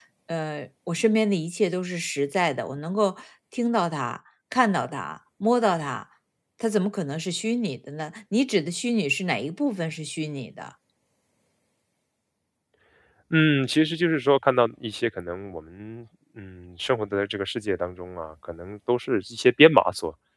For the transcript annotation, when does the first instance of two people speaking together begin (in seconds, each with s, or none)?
none